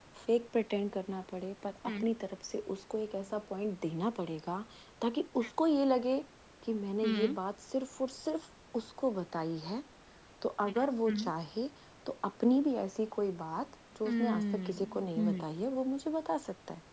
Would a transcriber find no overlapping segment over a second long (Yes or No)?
No